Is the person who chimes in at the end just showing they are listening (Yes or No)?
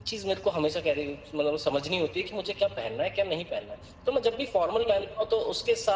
Yes